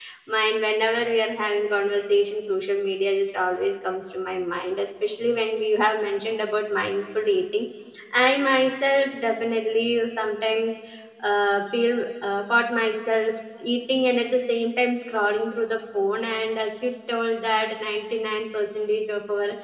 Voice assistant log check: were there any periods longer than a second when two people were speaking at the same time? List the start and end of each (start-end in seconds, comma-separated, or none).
none